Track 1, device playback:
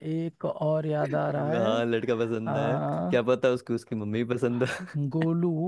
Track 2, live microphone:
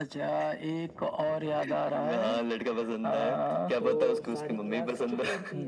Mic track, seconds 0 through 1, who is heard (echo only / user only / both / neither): echo only